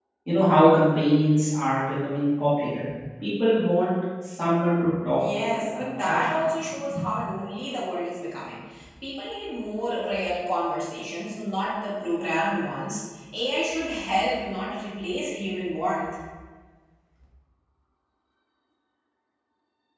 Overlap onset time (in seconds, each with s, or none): 5.2 s